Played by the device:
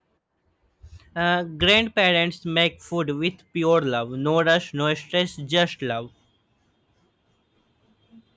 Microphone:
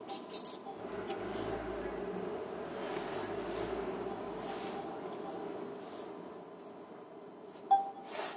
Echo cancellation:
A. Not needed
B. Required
A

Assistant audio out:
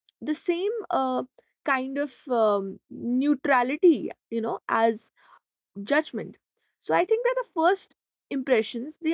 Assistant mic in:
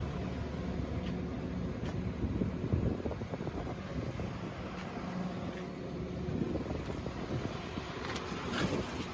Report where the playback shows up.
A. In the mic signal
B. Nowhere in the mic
B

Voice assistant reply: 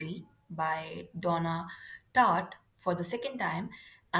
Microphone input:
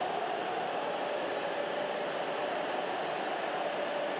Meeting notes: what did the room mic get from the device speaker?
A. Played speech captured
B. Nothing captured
B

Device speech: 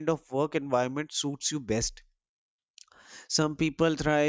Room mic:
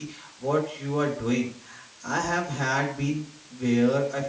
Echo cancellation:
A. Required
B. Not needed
B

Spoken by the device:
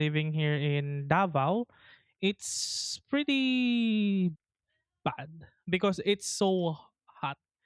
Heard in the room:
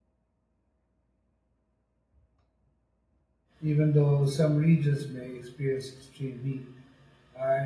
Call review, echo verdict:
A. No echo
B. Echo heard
A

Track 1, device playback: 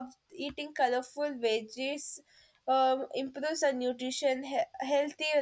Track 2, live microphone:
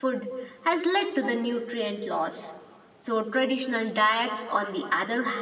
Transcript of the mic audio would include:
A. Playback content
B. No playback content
B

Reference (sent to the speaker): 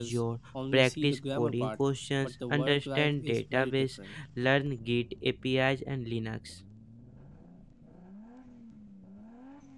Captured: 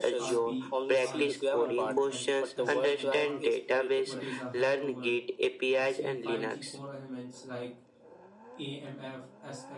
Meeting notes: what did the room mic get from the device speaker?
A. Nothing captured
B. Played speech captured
B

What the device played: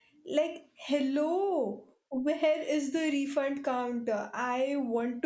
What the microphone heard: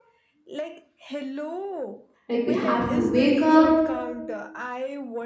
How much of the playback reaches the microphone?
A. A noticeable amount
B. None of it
A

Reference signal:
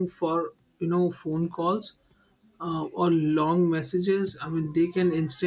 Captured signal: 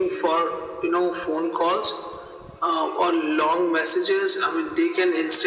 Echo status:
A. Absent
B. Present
B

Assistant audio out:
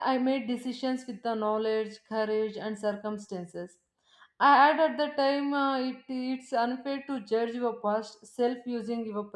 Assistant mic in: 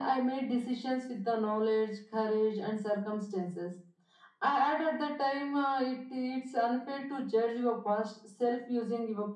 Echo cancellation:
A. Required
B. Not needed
A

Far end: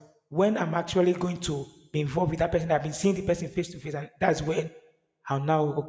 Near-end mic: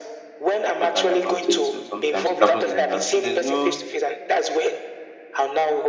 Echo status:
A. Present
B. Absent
A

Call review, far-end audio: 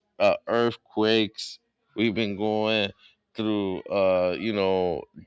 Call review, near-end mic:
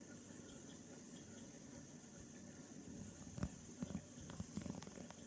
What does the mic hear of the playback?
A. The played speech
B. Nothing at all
B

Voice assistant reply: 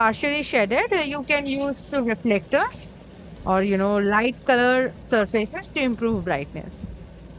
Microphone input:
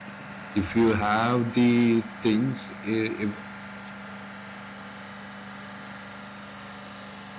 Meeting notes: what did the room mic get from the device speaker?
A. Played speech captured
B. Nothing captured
B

